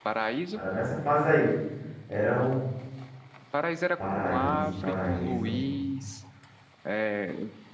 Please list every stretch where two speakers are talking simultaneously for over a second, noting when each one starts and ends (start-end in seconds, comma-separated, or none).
4.1-5.6